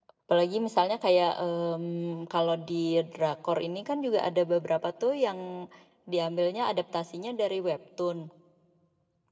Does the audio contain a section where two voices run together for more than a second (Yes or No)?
No